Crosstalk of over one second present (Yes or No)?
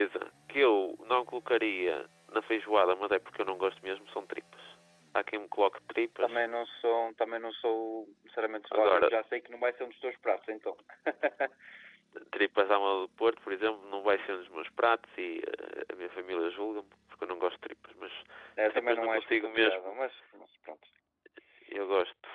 Yes